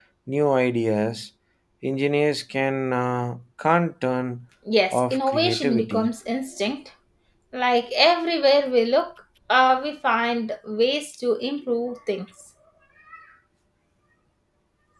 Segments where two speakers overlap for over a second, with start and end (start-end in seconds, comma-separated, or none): 4.9-6.1